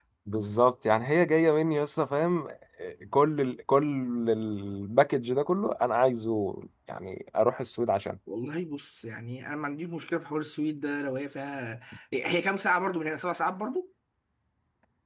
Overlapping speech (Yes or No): No